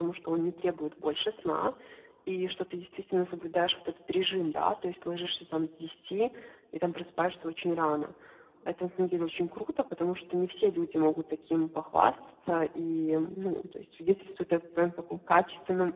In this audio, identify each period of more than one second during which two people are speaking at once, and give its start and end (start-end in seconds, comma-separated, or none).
none